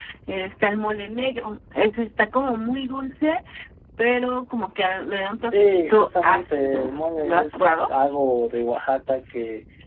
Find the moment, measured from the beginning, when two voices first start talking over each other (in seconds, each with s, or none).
5.5 s